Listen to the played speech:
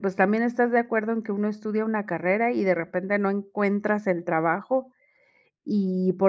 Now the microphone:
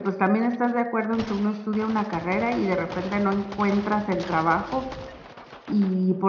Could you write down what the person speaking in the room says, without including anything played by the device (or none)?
none